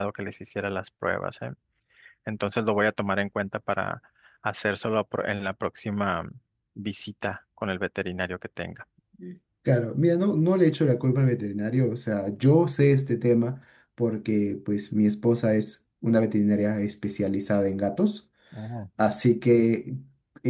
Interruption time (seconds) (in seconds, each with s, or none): none